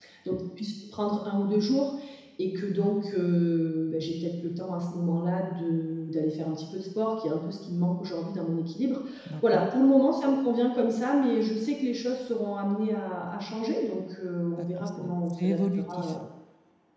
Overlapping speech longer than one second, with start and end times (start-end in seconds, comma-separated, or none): 14.6-16.2